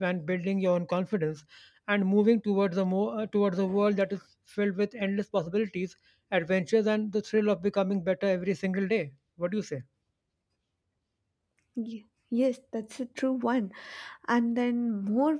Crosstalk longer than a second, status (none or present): none